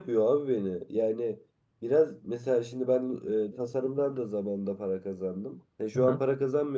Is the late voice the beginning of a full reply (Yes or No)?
No